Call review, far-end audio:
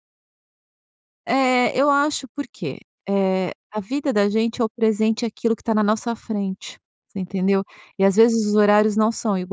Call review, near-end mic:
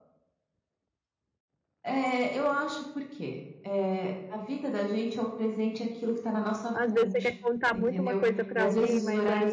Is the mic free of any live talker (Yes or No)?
No